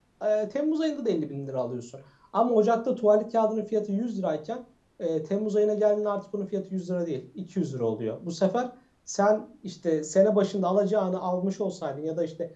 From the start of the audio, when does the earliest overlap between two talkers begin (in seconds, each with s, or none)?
none